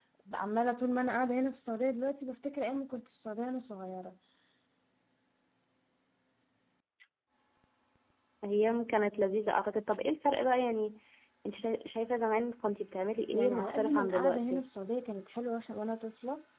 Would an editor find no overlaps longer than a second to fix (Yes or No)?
No